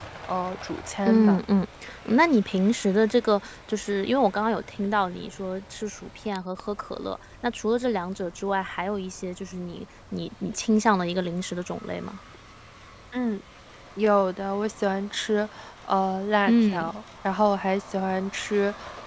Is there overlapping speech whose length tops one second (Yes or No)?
No